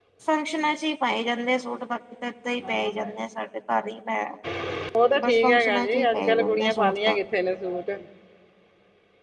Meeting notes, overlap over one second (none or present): present